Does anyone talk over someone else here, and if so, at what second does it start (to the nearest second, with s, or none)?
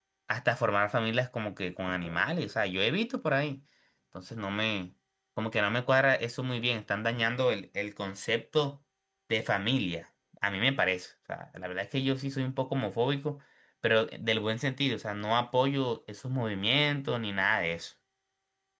none